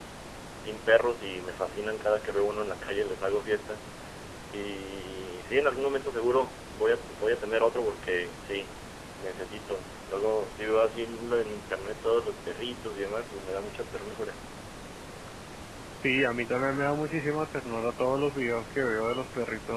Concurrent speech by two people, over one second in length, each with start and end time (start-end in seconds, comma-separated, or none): none